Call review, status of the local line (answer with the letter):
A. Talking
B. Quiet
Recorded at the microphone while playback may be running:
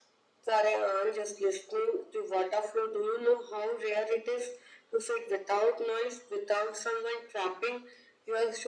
B